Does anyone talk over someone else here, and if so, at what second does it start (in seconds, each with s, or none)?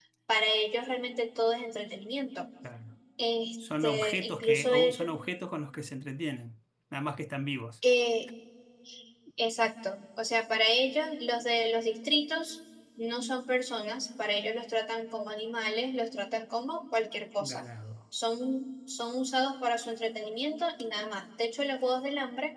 3.8 s